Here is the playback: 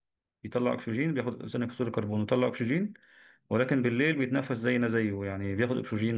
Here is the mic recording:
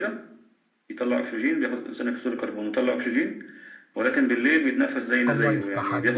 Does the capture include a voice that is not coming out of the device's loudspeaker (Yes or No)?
Yes